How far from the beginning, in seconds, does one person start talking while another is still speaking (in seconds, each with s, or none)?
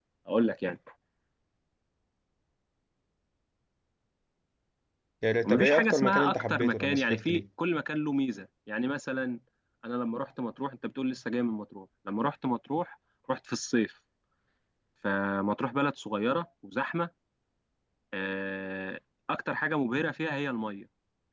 5.4 s